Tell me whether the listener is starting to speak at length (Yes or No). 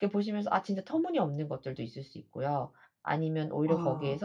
No